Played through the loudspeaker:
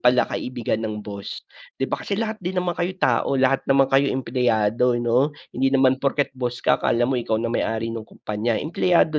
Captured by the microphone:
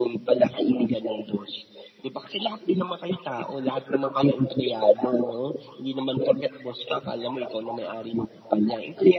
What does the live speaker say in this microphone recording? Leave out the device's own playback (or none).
none